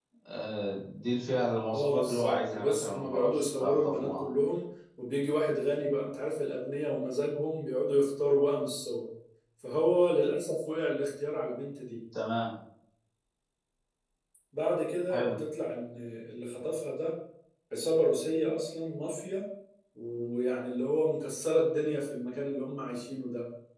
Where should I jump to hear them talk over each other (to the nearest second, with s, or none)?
2 s